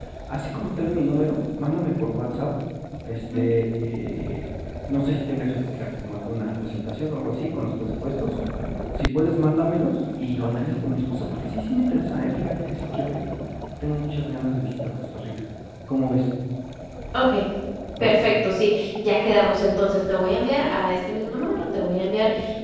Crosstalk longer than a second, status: none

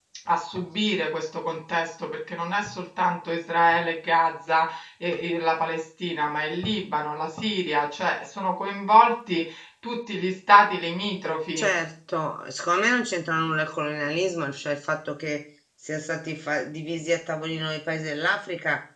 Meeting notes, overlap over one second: none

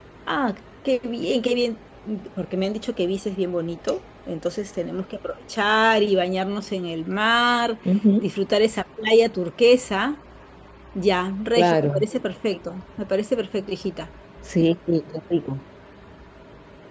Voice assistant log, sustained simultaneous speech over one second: none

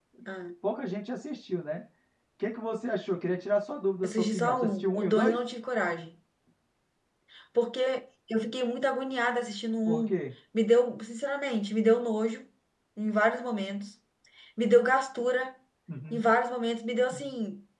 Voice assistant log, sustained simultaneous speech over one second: present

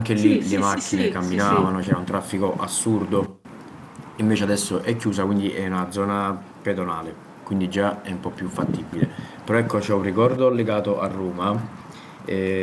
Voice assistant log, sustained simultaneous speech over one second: present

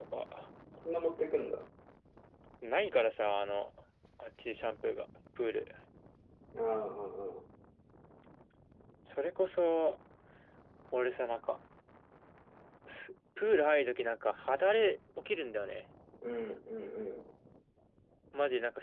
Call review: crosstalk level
none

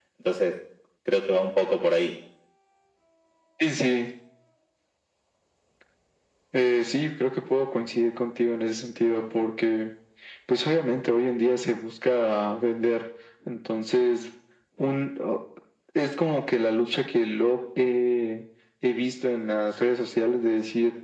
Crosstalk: none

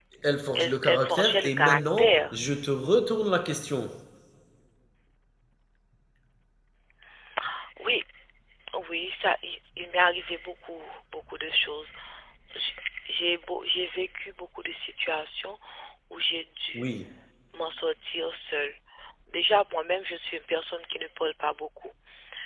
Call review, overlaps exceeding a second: present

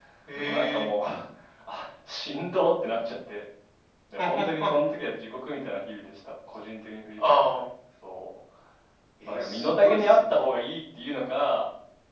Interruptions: present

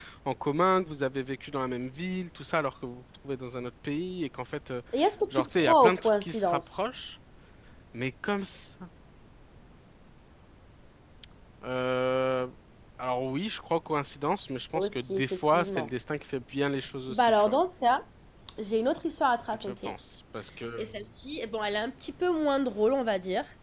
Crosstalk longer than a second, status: present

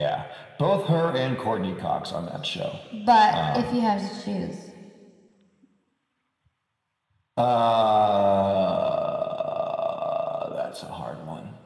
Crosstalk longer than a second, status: none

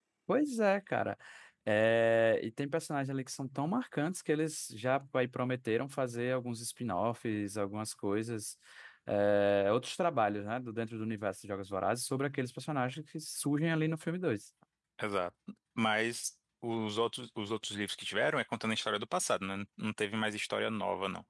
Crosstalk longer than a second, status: none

